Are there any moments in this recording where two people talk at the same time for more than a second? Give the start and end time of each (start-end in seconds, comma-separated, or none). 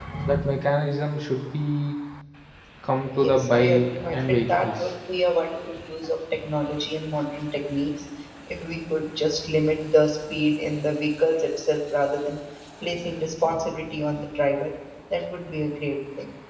3.1-4.8